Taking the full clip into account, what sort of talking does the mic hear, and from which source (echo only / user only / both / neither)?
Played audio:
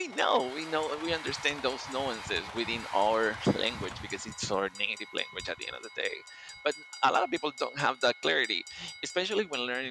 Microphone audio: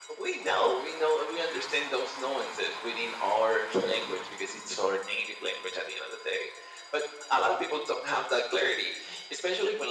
echo only